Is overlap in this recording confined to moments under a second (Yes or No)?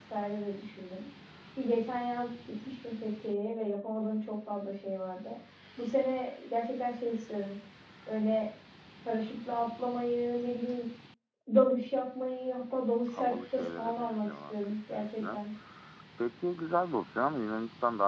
No